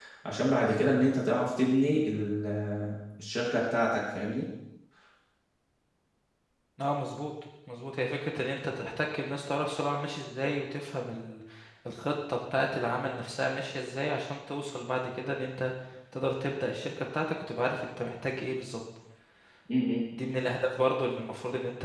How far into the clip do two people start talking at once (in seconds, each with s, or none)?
none